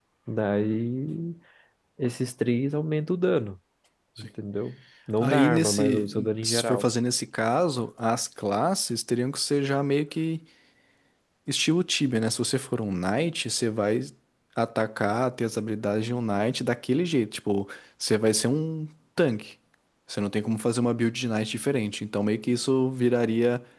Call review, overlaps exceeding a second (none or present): present